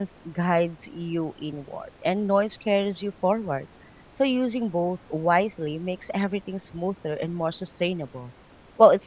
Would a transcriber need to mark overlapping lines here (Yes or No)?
No